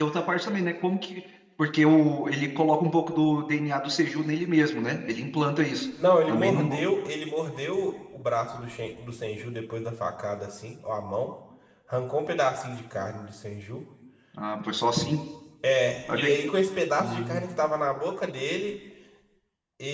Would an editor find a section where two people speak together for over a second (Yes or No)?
No